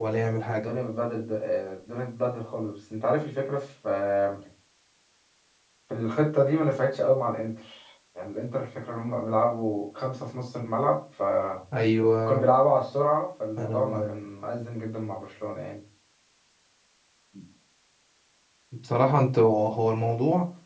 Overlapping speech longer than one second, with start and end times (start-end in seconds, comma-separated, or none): none